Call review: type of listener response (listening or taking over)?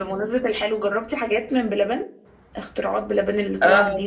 taking over